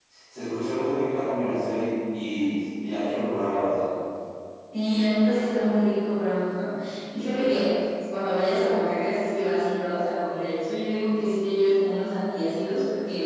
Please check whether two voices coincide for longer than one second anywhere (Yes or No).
No